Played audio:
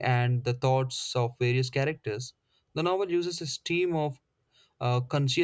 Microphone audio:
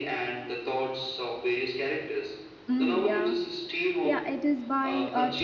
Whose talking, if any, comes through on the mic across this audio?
both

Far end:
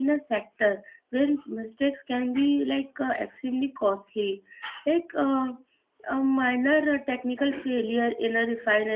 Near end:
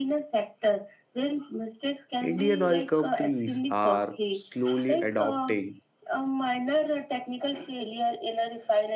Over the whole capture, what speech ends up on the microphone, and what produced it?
both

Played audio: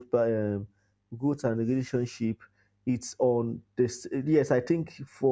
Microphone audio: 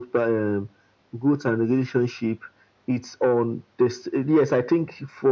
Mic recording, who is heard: echo only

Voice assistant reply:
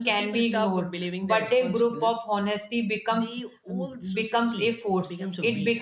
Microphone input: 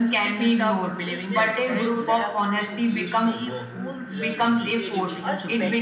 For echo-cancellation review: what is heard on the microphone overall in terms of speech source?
both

